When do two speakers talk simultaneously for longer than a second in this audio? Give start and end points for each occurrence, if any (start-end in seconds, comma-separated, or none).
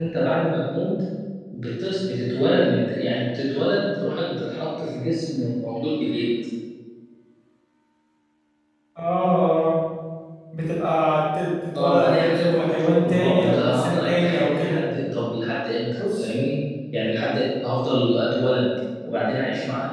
11.8-14.8